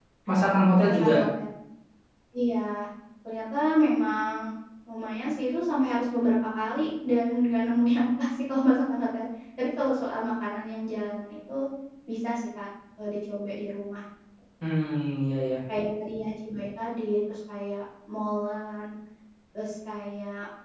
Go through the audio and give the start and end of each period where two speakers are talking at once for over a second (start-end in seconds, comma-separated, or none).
none